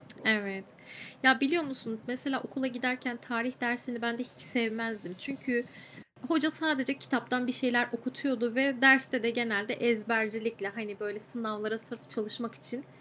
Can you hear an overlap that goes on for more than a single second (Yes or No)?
No